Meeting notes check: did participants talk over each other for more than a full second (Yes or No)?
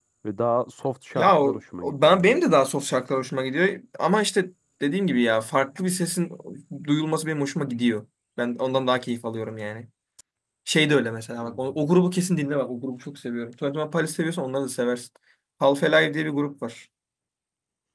Yes